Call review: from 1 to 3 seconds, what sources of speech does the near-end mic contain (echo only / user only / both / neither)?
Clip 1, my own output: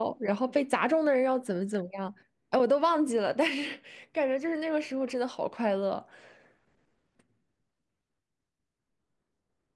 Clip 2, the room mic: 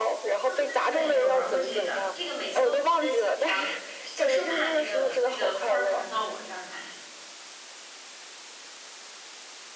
both